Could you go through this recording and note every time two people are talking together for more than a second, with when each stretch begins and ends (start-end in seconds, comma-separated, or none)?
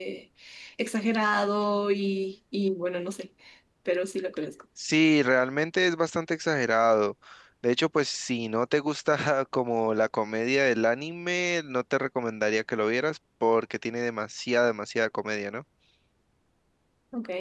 none